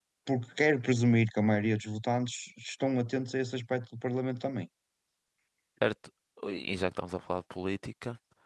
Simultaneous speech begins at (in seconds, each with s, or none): none